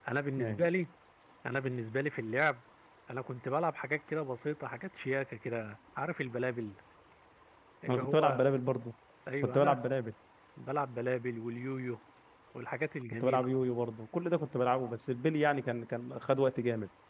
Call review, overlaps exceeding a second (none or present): none